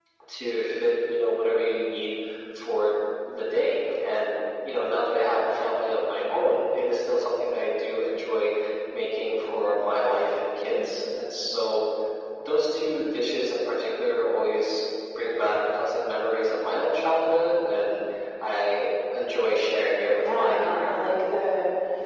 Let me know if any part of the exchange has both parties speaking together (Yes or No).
Yes